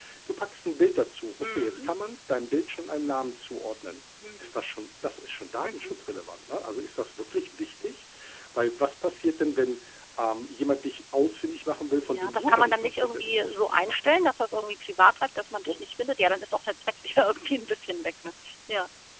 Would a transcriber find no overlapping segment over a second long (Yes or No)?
No